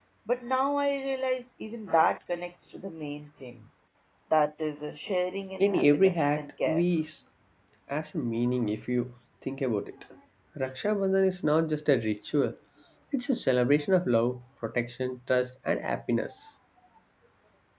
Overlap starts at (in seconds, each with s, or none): 5.6 s